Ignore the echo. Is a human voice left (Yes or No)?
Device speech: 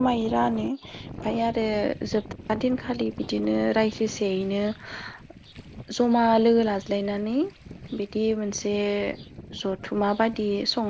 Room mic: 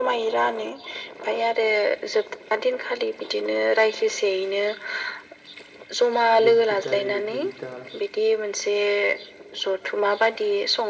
Yes